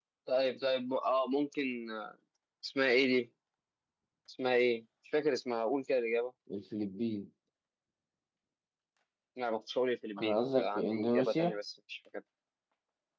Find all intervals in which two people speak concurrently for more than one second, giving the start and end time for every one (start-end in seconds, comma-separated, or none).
10.2-11.6